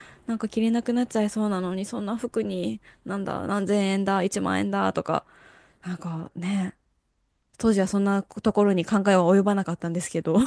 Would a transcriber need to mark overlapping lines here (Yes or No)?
No